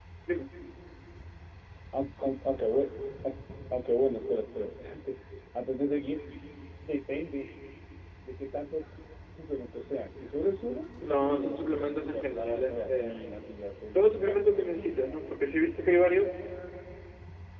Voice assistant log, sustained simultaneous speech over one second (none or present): present